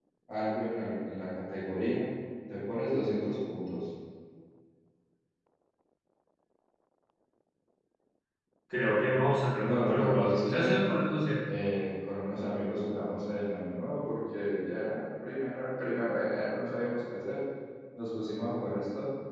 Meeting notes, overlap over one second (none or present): present